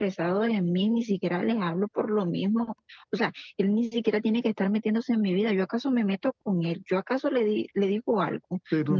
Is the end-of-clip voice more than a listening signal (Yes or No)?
Yes